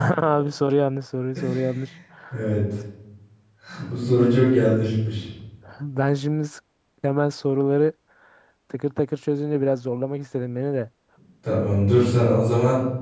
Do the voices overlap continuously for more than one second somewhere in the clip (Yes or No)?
No